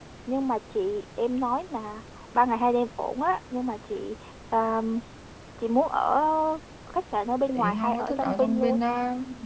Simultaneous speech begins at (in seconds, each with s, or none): 7.5 s